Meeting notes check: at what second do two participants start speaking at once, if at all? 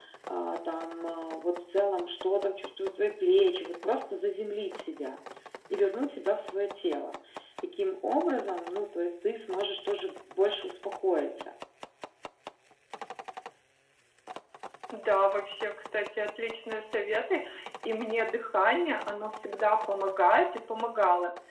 none

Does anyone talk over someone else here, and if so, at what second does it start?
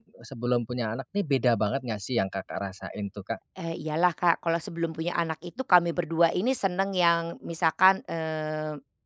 none

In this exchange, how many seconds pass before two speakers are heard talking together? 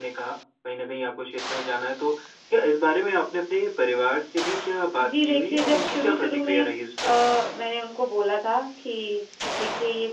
5.2 s

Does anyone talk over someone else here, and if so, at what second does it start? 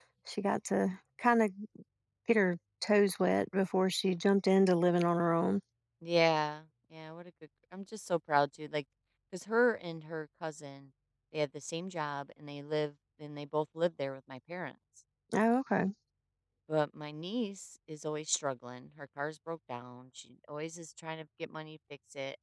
none

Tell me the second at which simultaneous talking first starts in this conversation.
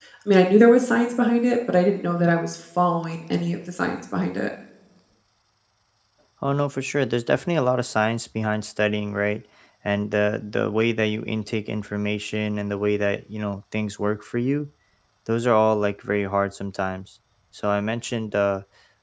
none

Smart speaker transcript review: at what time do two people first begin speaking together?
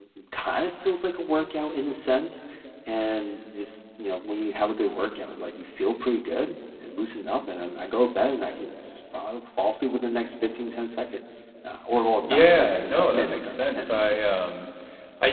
12.3 s

